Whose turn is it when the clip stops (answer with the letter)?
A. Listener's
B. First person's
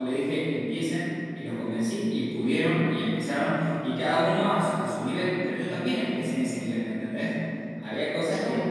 B